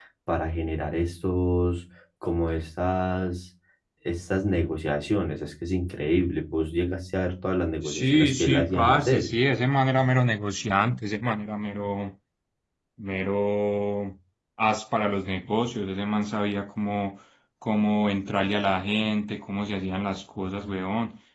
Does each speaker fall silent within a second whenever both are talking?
No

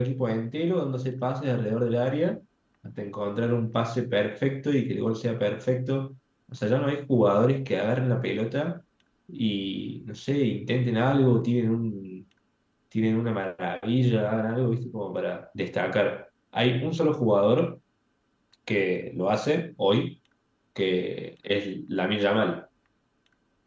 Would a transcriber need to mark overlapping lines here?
No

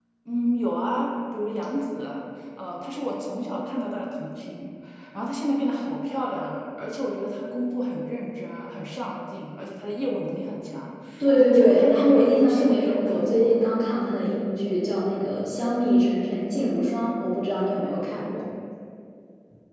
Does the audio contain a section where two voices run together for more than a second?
Yes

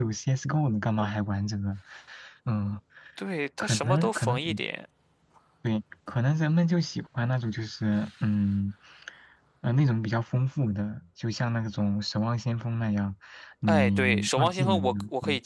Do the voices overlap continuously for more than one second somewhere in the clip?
Yes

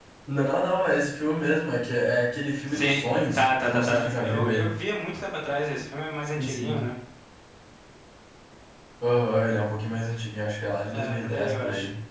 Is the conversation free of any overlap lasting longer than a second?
No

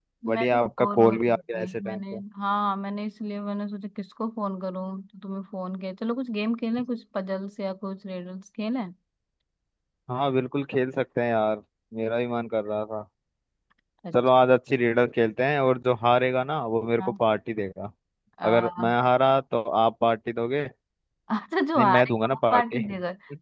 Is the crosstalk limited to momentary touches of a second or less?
No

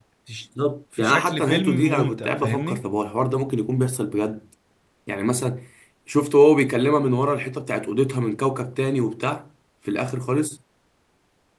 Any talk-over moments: Yes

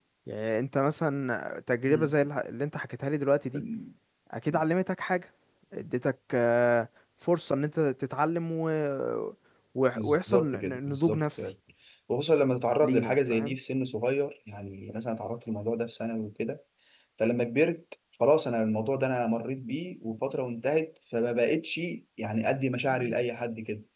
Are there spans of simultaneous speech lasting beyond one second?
Yes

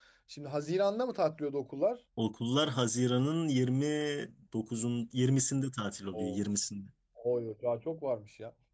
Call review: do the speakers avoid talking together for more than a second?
Yes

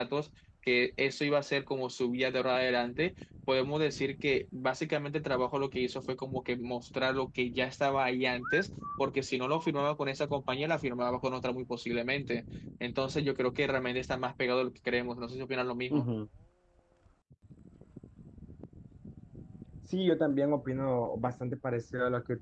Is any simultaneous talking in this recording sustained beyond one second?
No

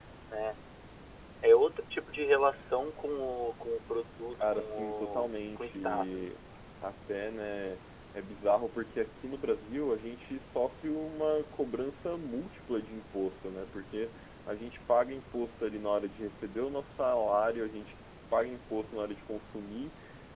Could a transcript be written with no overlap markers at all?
No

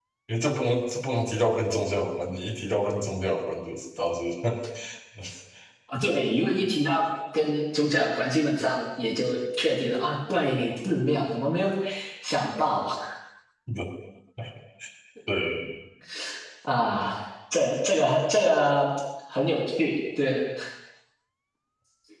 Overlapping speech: No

